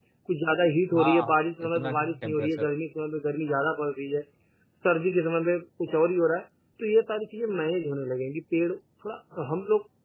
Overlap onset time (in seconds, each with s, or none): 1.0 s